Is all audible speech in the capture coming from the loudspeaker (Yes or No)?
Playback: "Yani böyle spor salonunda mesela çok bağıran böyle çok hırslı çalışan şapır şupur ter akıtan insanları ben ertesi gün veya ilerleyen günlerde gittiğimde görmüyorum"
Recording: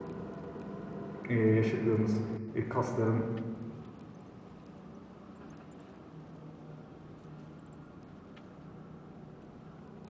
No